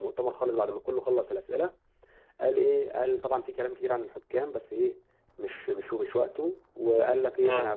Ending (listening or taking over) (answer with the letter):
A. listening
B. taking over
A